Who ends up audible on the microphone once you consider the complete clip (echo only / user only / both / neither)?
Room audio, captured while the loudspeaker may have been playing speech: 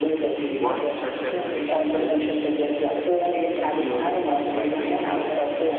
both